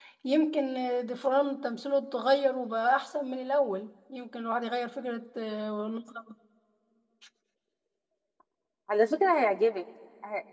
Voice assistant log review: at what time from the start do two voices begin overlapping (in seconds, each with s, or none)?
none